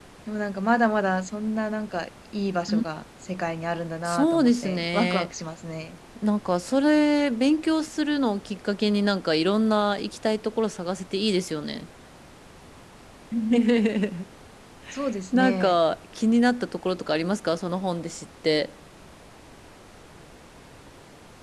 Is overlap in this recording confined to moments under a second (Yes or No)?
No